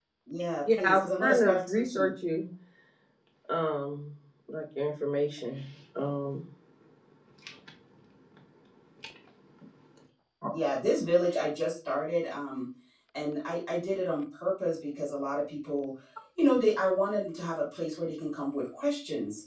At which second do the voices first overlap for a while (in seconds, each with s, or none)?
0.8 s